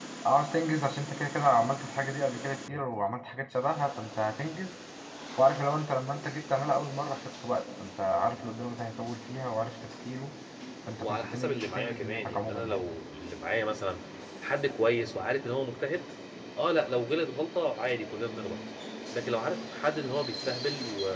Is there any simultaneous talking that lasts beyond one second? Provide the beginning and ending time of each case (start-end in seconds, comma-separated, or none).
11.0-12.8